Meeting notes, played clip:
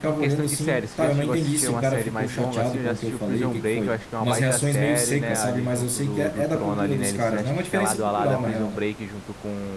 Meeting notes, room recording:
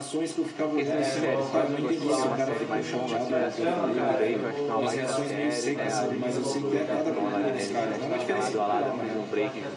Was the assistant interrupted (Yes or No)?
Yes